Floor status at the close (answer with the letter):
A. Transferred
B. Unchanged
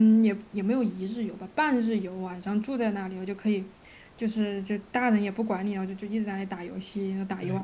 A